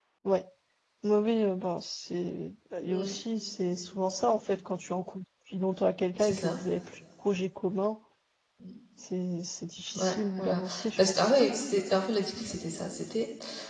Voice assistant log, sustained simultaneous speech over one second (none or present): present